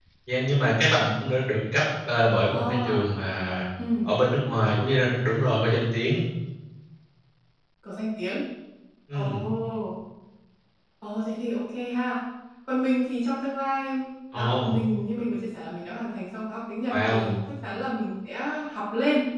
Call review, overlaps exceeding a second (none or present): none